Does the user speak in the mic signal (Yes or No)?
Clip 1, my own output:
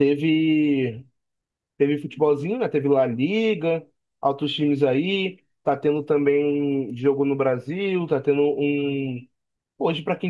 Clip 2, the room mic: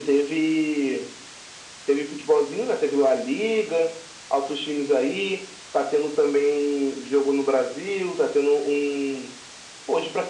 No